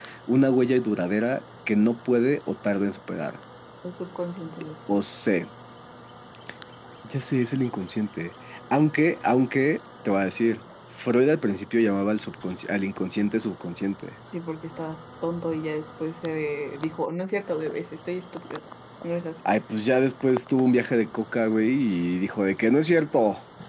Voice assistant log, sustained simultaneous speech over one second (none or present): none